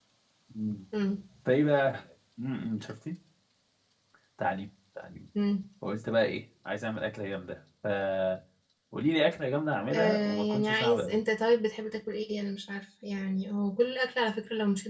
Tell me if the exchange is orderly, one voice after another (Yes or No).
No